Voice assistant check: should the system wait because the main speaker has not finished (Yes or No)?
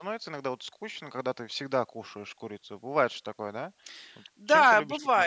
No